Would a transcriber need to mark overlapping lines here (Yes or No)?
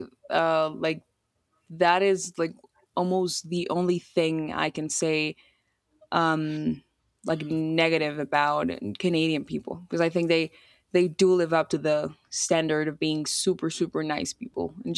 No